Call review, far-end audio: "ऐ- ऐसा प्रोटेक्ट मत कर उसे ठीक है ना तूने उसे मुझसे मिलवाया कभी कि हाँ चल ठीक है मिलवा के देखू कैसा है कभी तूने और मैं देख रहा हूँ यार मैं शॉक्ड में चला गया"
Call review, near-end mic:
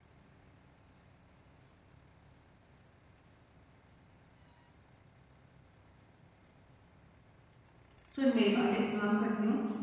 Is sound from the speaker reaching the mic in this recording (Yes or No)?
No